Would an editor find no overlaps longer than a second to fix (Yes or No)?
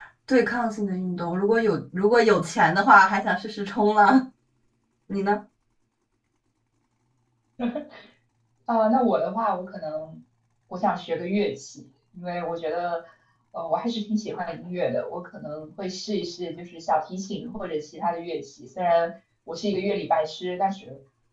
Yes